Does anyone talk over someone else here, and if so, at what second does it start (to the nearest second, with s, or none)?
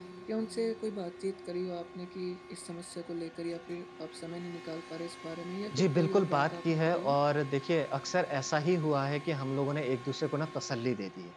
6 s